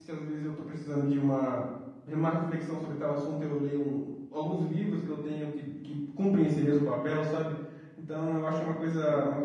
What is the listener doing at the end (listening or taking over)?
listening